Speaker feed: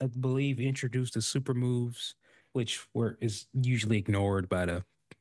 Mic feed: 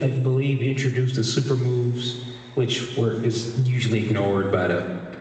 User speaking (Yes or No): No